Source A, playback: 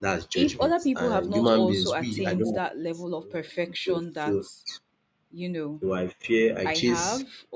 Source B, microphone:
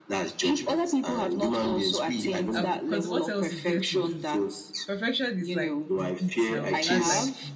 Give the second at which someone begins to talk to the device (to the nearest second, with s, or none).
3 s